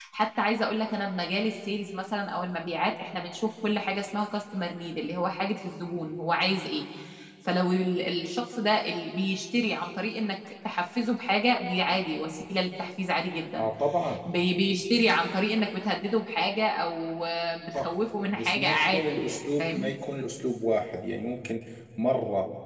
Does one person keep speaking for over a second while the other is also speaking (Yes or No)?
Yes